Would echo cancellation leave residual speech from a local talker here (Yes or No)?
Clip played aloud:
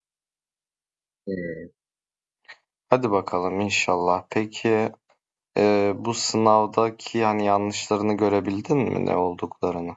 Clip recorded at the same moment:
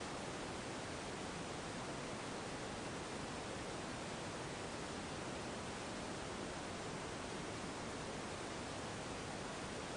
No